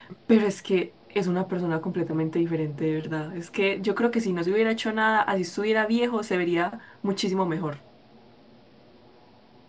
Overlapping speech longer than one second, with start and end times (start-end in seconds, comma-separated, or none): none